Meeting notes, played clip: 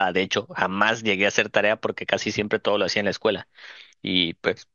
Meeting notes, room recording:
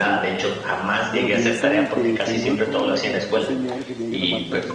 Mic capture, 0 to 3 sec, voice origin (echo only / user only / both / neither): both